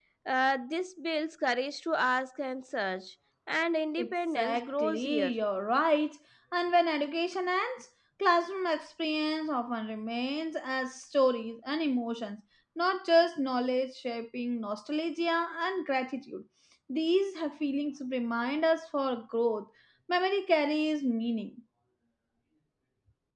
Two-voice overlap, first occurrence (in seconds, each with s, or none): 4.0 s